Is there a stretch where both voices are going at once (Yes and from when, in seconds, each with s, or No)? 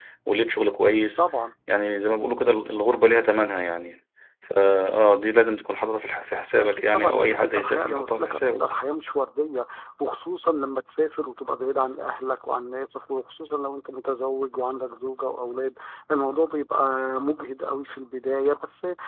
Yes, from 6.6 s